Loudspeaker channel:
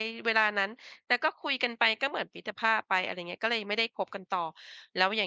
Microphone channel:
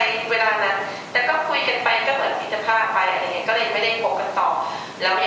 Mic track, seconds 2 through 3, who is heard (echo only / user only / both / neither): echo only